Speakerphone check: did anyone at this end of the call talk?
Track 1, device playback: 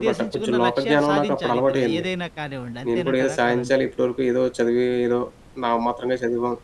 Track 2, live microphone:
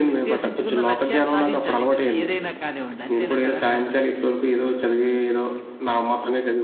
No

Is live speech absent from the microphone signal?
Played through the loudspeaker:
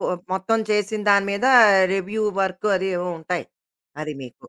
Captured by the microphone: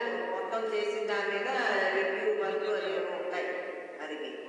No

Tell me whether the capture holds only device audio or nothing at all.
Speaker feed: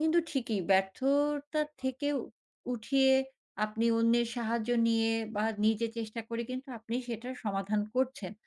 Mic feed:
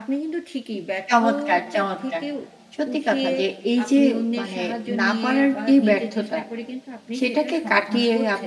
No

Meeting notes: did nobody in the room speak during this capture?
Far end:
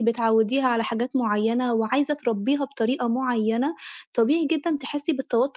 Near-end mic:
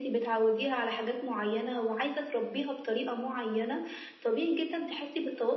Yes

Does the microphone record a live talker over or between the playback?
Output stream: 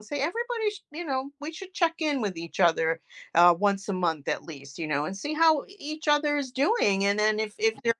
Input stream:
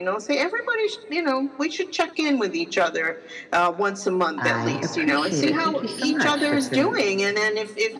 Yes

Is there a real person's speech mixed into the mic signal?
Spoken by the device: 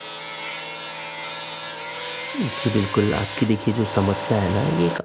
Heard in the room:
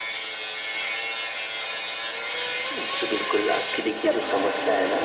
Yes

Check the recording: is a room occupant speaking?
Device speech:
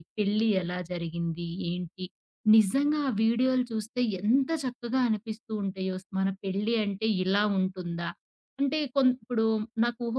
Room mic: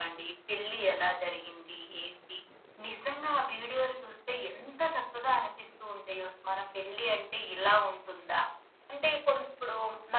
No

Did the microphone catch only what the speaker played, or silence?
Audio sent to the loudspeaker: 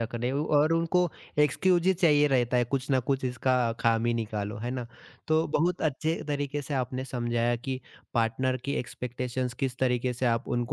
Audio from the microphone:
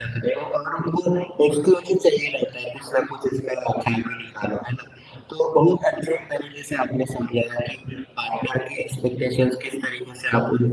Yes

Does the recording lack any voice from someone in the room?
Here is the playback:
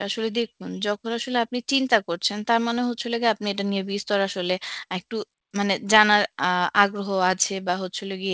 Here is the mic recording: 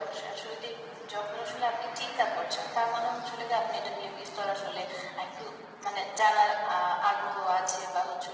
Yes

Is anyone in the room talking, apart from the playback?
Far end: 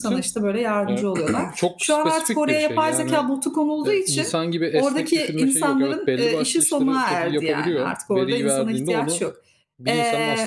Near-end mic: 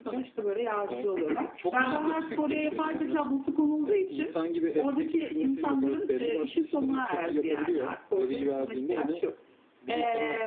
Yes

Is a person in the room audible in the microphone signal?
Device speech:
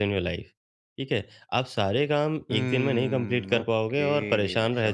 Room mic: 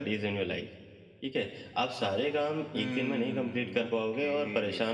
No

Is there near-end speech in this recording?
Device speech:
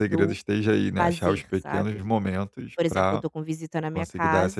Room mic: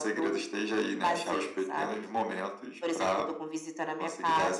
No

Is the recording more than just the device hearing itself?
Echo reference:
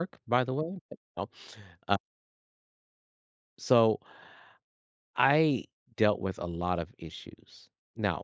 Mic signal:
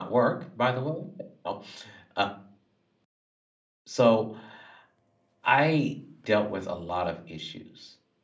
No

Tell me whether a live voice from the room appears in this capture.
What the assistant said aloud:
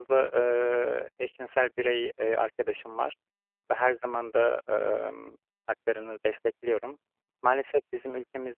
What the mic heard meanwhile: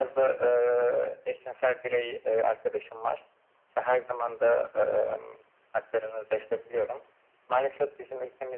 No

